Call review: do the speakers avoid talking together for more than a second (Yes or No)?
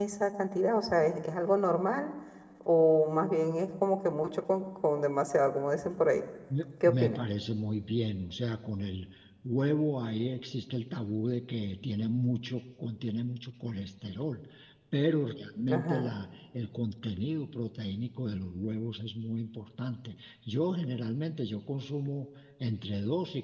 Yes